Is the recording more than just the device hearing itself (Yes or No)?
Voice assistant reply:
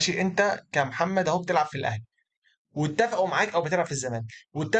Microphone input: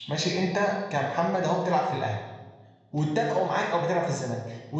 No